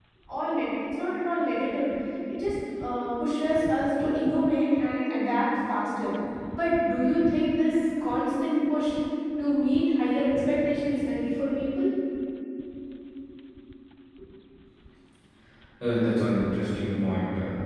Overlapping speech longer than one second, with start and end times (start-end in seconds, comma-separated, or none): none